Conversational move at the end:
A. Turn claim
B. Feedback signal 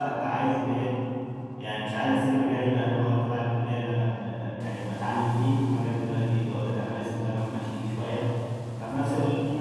B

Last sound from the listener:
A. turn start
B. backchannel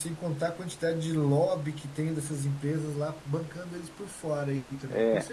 A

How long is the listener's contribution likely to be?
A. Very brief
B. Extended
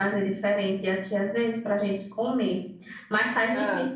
A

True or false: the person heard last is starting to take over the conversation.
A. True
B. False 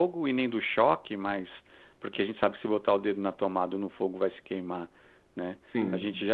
B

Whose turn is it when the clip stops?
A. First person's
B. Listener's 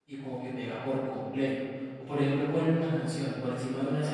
A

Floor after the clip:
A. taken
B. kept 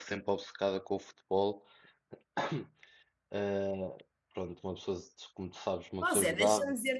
A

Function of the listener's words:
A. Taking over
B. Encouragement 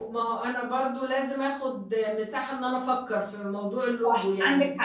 A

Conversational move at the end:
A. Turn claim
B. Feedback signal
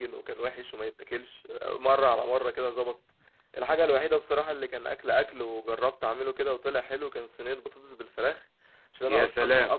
B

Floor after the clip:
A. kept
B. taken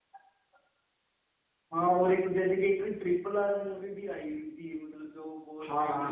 B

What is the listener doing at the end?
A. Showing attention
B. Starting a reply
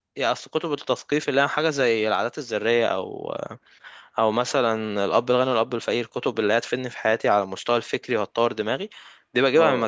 A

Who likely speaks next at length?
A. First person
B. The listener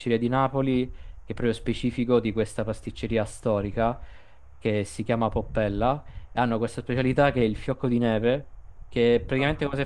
A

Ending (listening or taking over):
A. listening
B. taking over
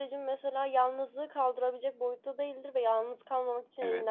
A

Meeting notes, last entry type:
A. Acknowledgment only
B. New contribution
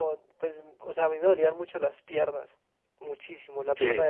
A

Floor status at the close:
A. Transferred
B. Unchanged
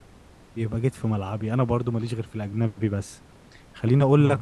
B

